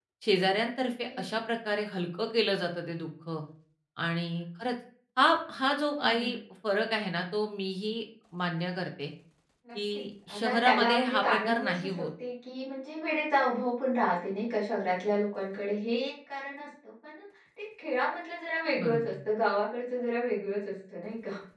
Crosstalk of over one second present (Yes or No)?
Yes